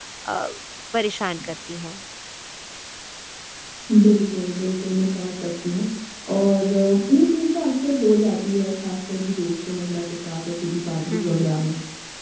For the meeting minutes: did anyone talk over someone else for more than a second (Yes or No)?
No